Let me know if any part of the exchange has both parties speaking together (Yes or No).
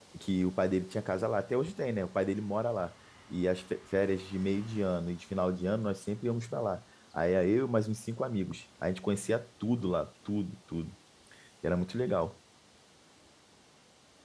No